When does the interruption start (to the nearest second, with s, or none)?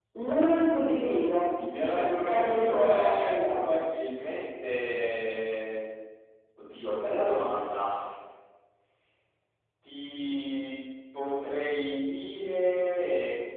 2 s